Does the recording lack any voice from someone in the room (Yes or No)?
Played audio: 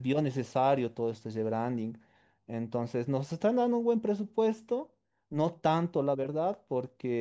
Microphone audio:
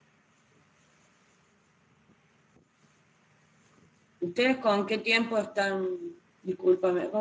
No